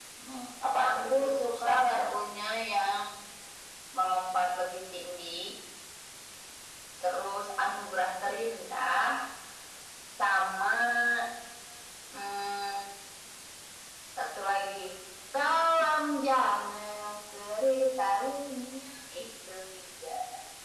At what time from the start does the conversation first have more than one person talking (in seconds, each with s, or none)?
0.9 s